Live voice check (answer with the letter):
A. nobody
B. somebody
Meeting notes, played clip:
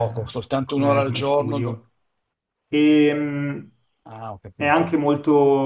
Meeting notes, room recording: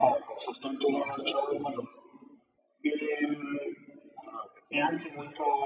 A